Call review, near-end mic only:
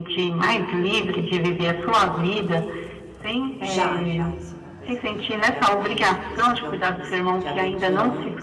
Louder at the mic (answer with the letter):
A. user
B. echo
B